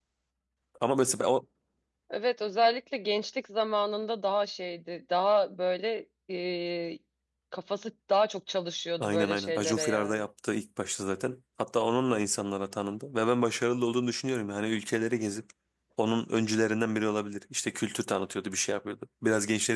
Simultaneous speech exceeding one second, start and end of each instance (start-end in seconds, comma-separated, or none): 9.0-10.3